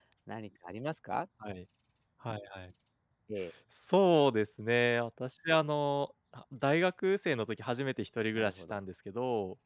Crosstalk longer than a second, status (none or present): none